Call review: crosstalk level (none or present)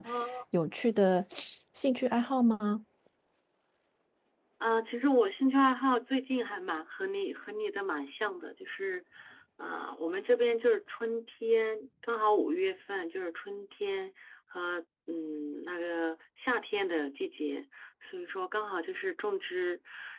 none